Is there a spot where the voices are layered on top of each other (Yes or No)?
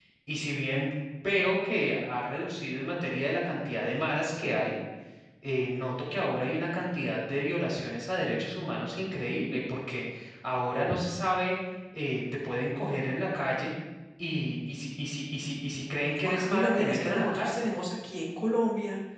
Yes